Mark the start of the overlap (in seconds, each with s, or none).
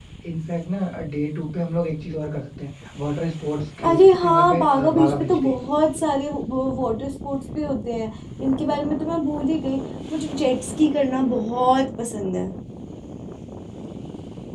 3.8 s